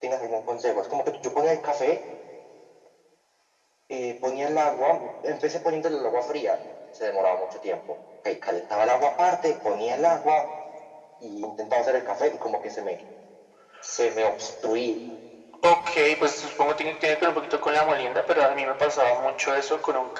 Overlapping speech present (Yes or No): No